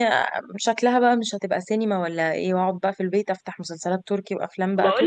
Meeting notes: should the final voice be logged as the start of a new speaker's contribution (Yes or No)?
Yes